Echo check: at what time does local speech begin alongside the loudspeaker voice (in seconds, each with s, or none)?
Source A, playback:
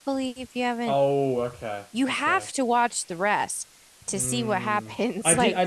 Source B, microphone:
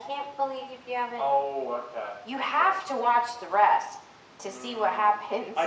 none